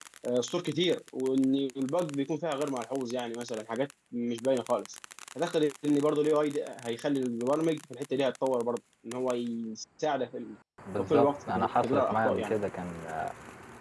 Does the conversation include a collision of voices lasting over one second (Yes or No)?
Yes